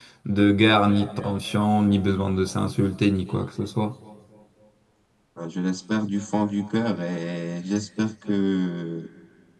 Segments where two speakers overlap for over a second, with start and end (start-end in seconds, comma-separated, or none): none